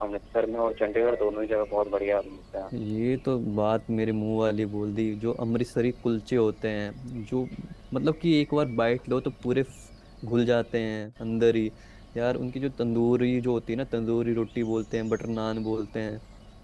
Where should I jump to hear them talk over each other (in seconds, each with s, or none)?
none